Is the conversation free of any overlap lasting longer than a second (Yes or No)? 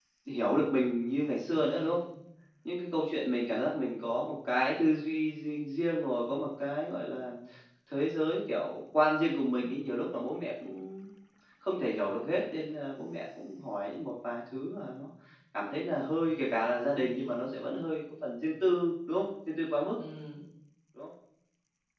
Yes